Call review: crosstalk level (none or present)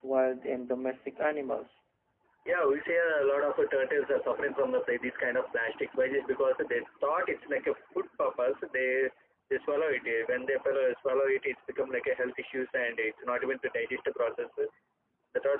none